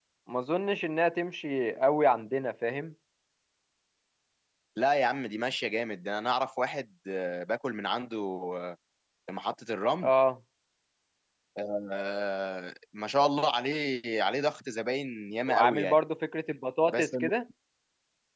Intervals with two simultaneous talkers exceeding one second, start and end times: none

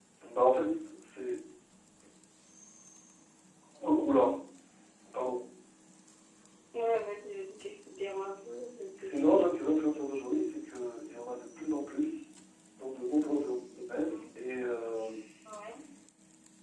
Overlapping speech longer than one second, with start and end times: none

